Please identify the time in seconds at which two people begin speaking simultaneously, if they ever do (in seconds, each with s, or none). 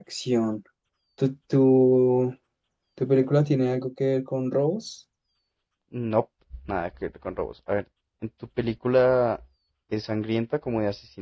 none